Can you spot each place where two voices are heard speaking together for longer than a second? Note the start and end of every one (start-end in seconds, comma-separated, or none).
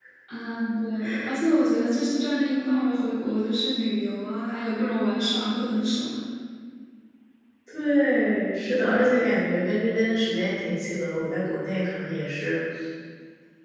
none